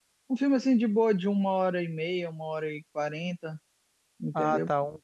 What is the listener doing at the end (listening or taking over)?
taking over